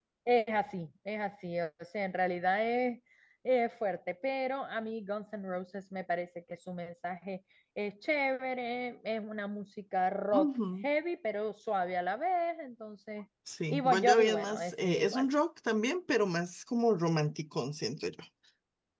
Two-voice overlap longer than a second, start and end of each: 13.7-15.2

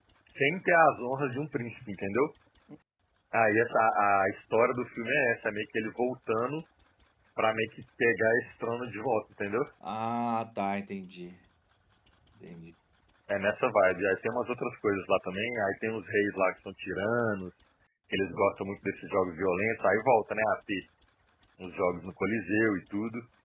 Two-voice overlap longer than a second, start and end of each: none

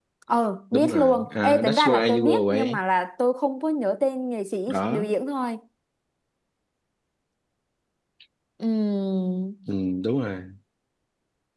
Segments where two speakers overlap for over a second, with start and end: 0.7-2.8

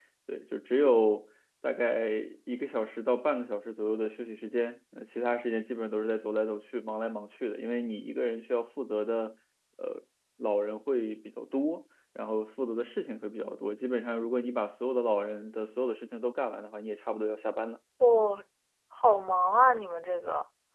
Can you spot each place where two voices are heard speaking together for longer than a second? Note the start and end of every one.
none

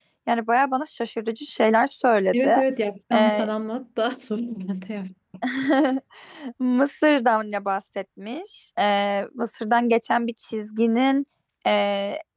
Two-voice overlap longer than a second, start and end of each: none

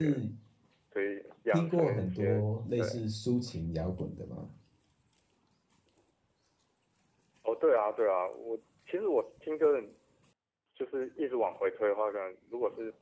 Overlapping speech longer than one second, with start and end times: 1.5-3.0

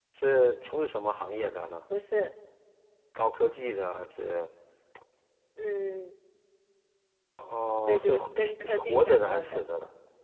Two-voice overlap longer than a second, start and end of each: 7.9-9.7

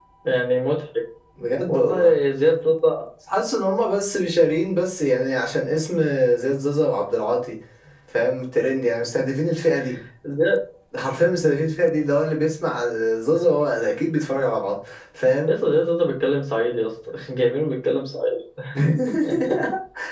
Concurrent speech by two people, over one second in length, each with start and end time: none

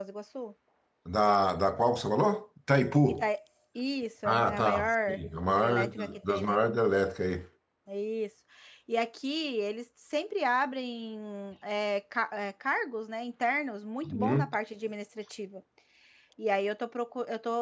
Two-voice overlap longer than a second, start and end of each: 4.2-6.6

